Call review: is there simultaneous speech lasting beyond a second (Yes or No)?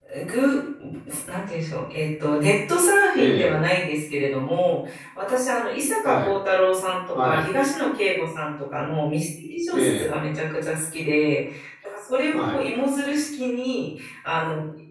No